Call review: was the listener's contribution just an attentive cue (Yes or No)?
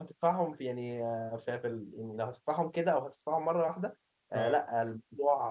Yes